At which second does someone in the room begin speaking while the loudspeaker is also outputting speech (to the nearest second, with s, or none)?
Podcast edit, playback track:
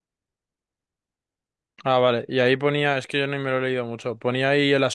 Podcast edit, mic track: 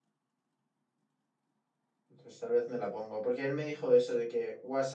2 s